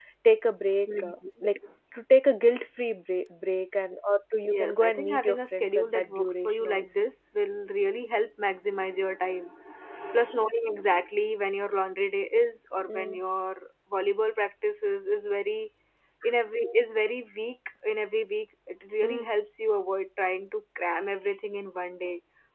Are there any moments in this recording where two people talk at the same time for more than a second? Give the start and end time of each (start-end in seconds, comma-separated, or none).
4.5-6.8